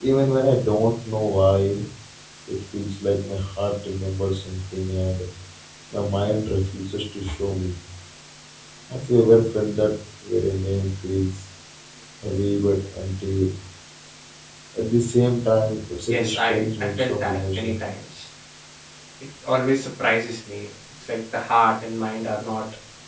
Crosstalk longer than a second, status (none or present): present